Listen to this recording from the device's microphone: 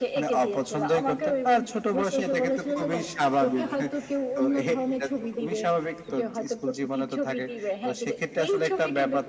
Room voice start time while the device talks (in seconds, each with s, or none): none